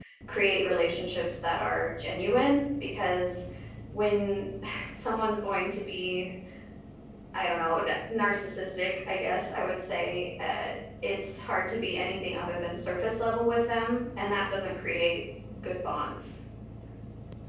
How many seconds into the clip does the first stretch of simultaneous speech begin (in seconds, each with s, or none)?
none